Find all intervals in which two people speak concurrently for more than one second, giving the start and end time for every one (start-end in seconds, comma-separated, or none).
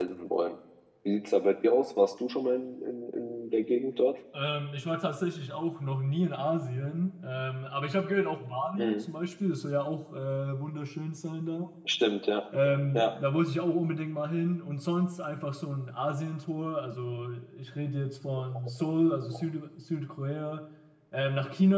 none